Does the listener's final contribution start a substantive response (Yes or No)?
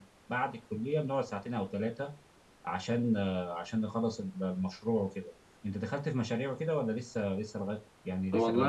Yes